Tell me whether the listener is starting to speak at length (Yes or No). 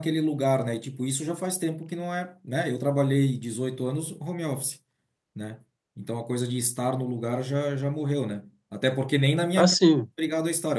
No